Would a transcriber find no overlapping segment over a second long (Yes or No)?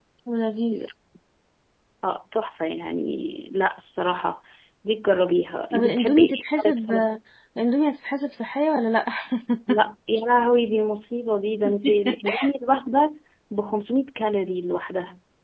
No